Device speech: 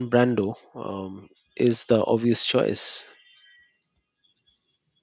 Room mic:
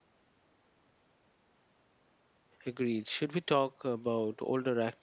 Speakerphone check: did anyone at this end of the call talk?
Yes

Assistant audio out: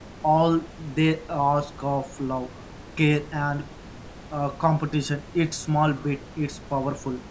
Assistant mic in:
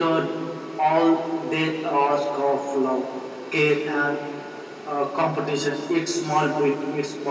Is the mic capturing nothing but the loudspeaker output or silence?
Yes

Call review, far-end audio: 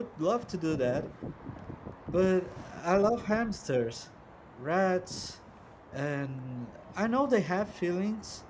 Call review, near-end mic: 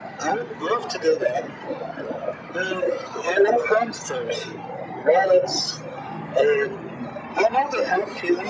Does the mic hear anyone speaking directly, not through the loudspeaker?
No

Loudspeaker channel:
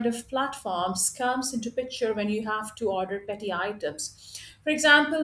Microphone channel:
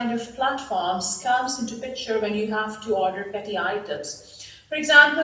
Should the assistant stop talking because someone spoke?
No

